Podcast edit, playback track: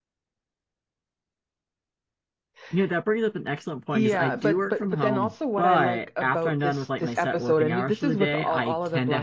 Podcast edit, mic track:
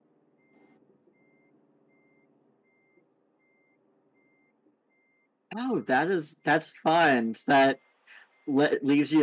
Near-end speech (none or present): present